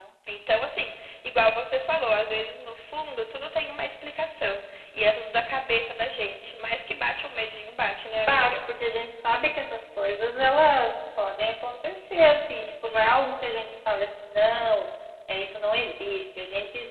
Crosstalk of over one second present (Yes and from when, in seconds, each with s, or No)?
No